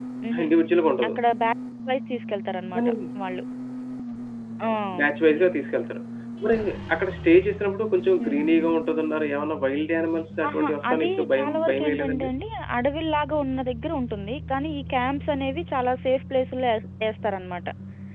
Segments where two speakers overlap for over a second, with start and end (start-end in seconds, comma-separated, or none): 10.5-12.3